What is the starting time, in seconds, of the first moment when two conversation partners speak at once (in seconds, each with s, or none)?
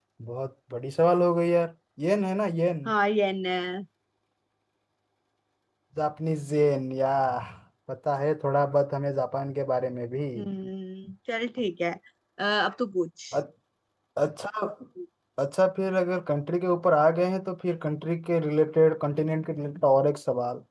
none